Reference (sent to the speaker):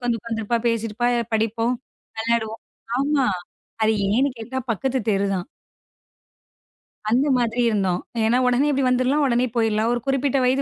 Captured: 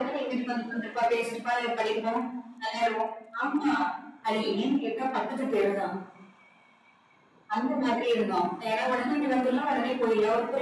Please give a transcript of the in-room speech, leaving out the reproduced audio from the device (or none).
none